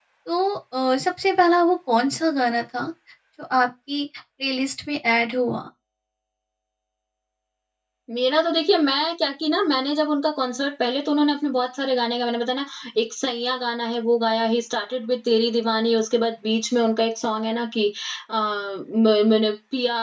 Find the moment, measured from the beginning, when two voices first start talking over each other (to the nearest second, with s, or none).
none